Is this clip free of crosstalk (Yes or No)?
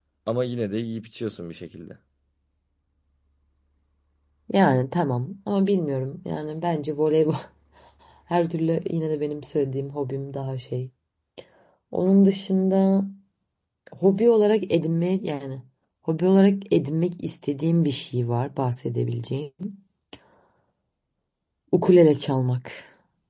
Yes